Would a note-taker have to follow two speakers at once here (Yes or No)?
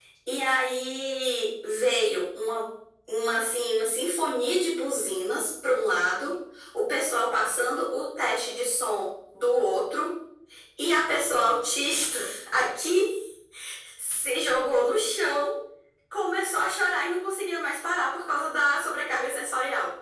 No